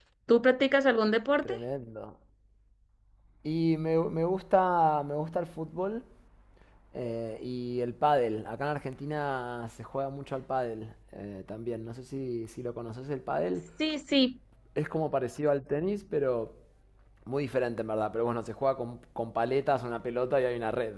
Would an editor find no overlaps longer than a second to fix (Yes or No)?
Yes